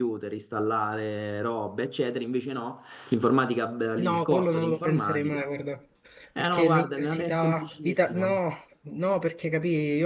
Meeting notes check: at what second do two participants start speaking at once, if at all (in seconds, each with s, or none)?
4.0 s